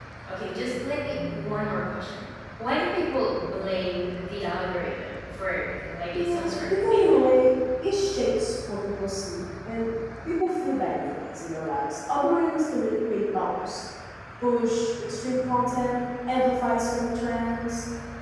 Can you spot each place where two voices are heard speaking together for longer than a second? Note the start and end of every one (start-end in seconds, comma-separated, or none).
6.1-7.3